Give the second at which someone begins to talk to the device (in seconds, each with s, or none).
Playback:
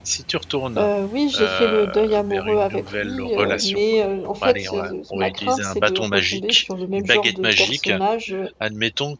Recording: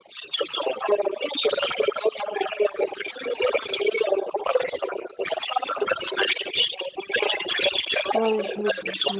8.1 s